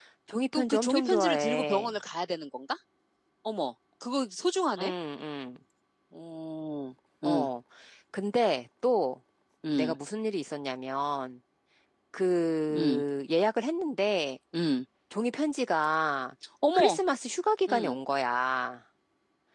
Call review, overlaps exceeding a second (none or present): present